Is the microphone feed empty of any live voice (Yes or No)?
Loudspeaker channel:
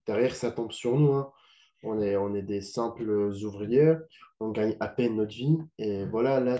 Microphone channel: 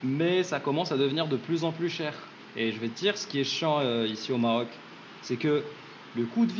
No